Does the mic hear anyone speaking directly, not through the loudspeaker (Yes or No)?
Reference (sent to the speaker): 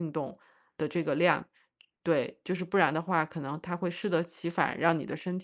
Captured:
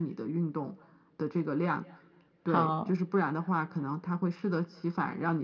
Yes